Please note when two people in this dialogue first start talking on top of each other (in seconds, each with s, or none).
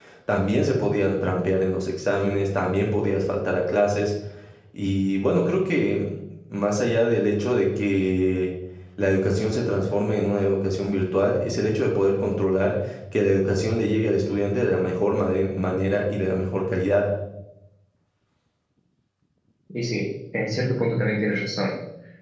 none